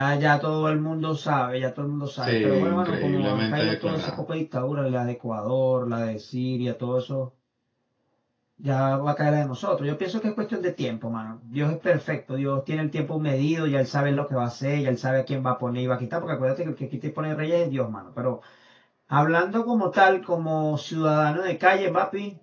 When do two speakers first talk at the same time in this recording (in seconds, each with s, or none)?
2.2 s